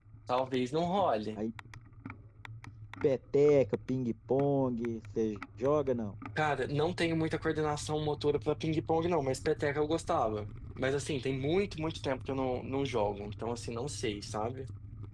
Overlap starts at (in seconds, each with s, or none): none